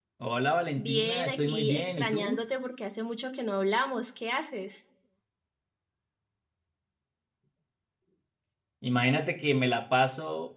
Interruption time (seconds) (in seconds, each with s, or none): 0.8 s